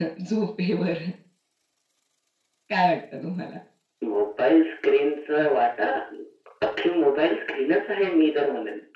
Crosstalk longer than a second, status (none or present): none